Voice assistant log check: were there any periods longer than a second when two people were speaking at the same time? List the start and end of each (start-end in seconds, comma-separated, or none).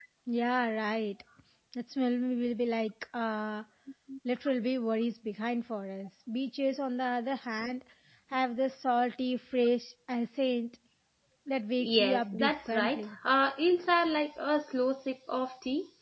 11.8-13.2